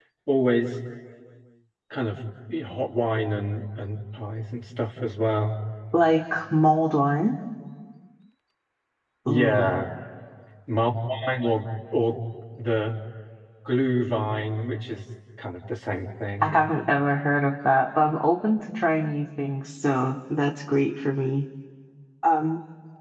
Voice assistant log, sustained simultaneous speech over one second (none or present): none